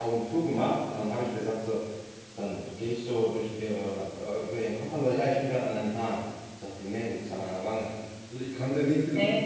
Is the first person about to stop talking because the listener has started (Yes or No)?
No